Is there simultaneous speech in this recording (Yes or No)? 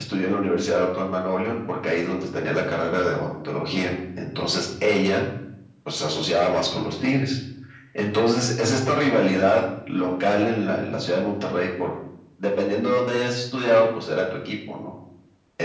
No